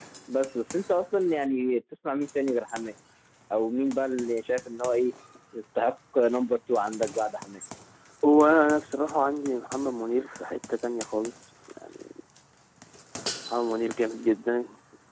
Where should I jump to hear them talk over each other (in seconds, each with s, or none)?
none